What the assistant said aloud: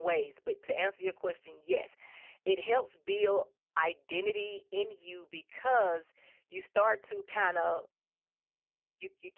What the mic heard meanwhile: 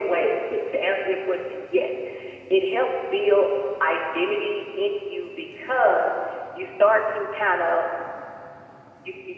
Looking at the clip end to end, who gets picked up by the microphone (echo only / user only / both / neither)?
echo only